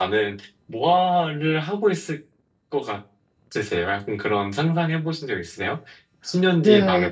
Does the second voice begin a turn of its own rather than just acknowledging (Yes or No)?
Yes